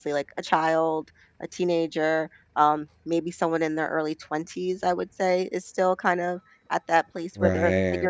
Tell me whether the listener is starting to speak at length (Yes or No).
No